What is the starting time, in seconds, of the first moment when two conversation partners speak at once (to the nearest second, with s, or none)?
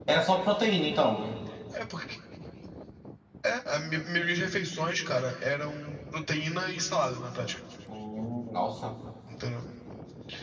none